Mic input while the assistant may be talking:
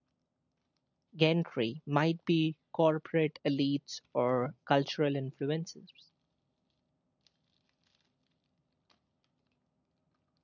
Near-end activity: present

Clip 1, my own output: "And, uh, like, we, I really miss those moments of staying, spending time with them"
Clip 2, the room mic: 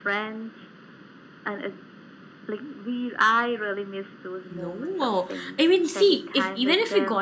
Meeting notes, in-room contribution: present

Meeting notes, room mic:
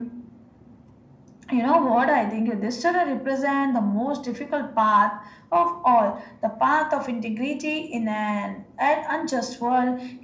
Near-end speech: none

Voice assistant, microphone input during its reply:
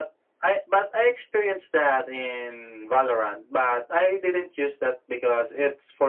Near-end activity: none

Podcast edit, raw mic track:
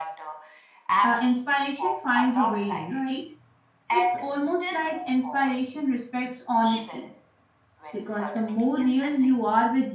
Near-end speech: present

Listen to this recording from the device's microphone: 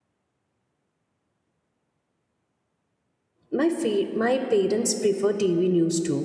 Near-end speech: present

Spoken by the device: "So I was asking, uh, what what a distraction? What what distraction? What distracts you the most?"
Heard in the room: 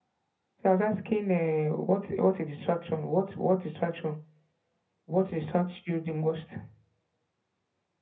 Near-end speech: none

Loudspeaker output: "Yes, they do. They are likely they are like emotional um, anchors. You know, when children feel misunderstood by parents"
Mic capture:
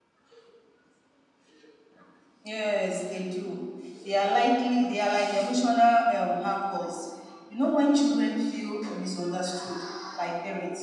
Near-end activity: none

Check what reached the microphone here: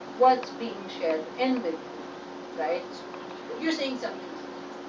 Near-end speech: none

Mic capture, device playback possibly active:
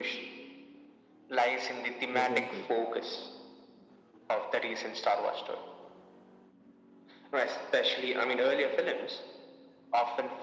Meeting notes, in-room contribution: present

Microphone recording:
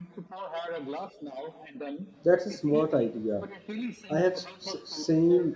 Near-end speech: present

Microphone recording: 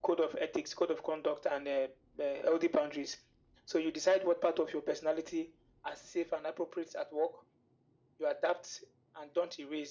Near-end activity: none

